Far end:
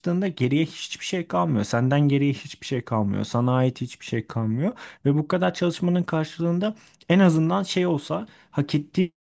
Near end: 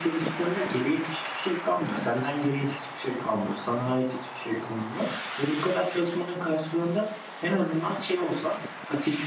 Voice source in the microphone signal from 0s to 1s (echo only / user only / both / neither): echo only